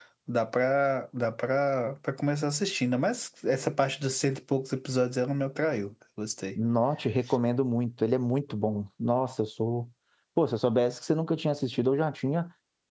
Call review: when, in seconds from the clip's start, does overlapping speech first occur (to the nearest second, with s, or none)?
none